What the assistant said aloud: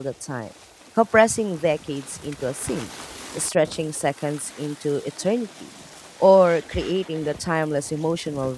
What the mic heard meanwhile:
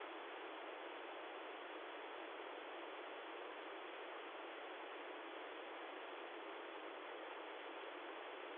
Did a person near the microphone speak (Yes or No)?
No